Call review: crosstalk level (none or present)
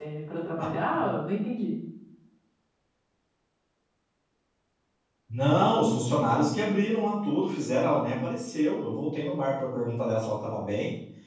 none